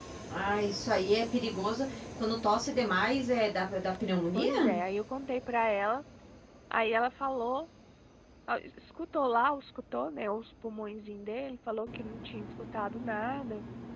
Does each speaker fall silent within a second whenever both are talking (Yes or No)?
Yes